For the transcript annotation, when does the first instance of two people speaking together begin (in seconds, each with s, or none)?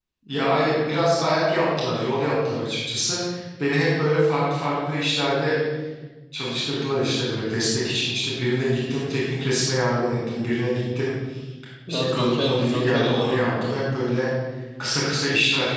11.9 s